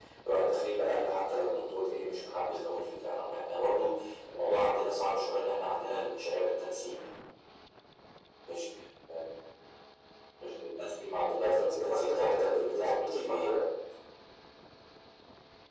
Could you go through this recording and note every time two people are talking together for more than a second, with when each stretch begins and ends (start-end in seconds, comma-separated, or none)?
11.2-13.5